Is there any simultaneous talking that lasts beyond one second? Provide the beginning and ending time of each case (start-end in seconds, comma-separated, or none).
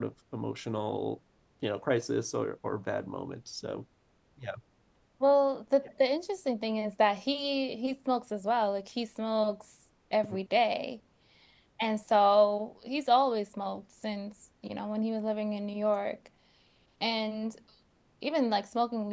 none